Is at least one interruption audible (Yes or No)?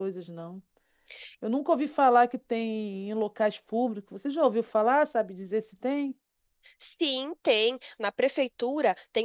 No